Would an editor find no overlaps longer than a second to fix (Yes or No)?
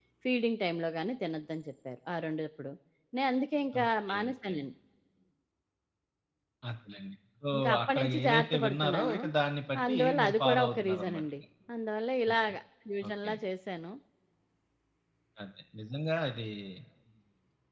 No